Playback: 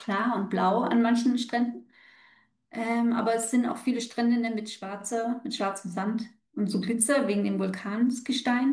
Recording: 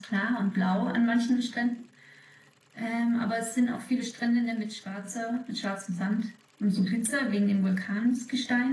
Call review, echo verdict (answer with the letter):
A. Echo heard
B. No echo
A